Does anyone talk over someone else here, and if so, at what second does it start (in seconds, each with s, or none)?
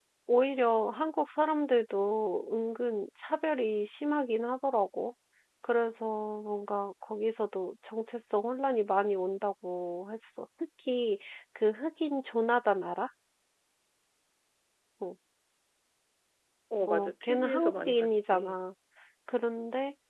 16.9 s